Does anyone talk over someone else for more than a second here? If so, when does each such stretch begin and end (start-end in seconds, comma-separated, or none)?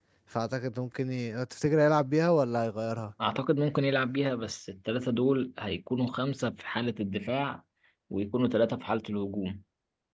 none